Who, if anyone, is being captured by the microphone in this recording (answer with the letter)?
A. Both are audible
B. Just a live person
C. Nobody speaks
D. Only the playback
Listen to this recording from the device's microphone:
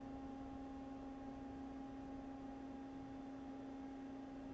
C